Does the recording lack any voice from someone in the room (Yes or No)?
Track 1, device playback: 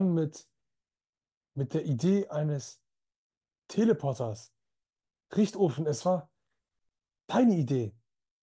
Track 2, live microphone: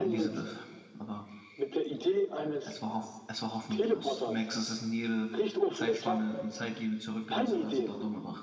No